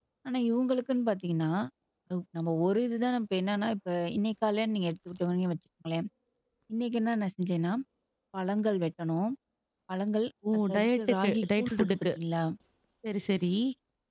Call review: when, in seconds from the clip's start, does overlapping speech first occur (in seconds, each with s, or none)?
10.7 s